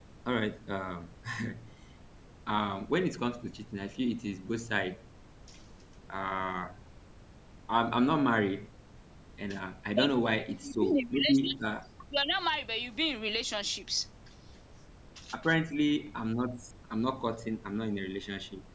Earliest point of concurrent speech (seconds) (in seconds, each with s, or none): 10.0 s